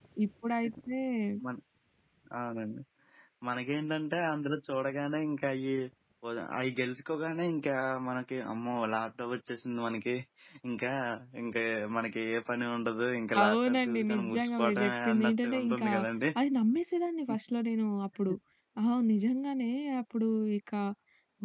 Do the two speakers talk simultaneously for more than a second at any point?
Yes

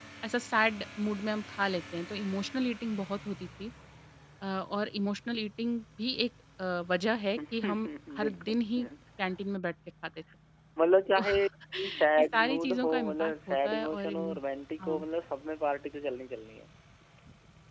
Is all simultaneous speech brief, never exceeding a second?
No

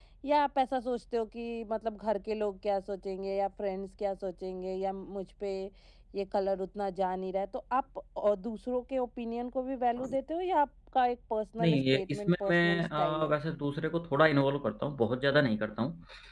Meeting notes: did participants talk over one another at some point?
Yes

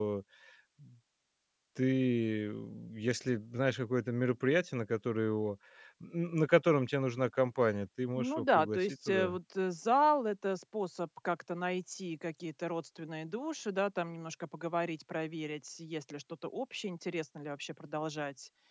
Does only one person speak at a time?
No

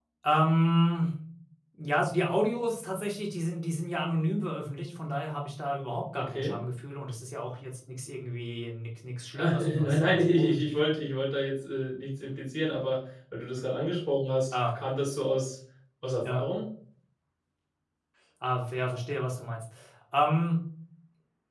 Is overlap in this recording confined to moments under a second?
No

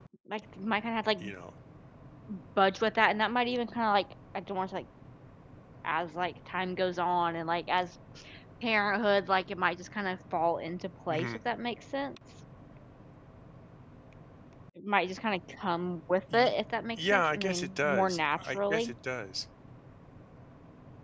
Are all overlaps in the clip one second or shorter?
No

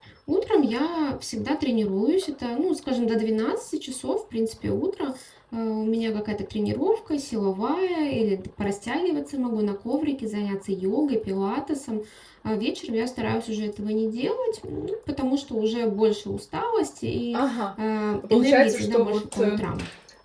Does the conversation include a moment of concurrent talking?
Yes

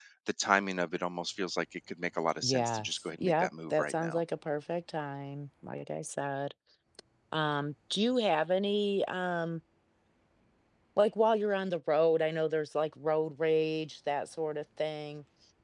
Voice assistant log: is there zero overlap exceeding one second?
No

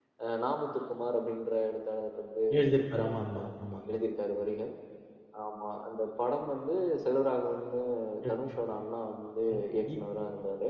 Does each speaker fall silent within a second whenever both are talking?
Yes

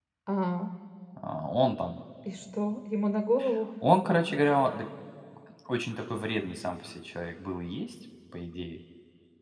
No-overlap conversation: Yes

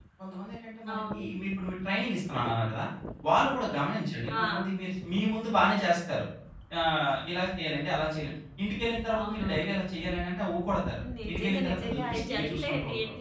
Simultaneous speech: Yes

